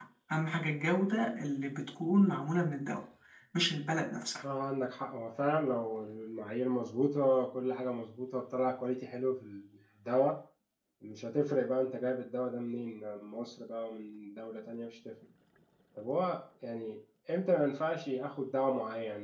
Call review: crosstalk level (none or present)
none